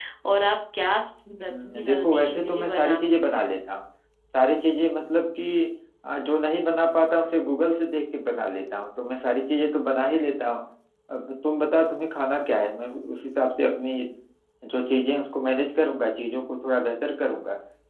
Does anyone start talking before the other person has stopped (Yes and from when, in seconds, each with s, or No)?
Yes, from 1.5 s